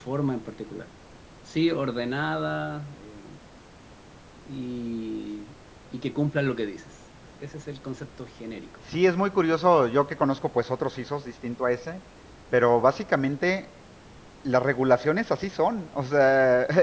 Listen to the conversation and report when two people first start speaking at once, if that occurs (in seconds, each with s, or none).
none